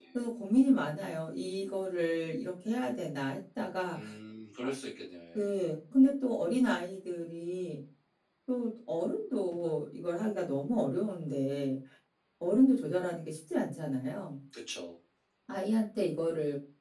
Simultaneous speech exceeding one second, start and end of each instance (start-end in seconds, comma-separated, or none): none